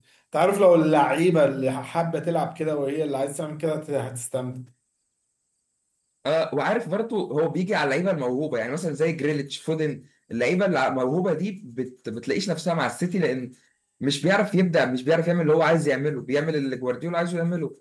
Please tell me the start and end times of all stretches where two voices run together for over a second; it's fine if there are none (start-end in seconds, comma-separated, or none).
none